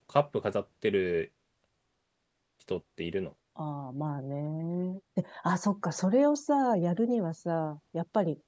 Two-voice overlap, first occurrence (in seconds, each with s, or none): none